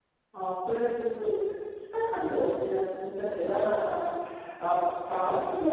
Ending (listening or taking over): listening